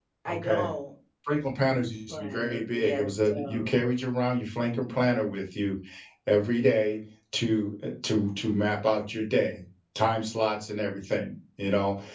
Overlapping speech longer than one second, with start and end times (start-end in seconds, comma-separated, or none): 2.1-3.7